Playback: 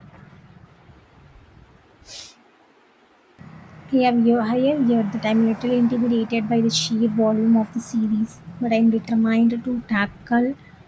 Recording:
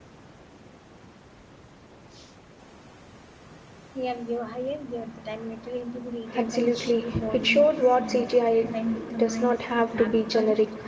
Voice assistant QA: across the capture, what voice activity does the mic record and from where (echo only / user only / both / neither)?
both